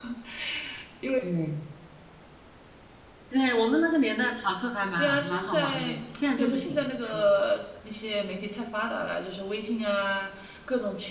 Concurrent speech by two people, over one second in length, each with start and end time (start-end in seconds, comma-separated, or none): 5.0-7.3